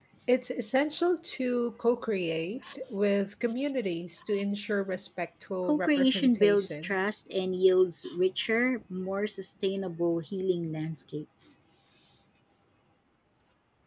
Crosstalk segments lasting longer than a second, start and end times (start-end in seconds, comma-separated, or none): 5.7-6.9